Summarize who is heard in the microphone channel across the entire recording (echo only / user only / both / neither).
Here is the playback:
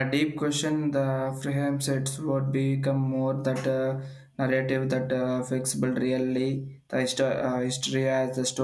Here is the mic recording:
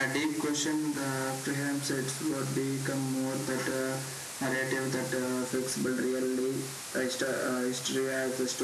echo only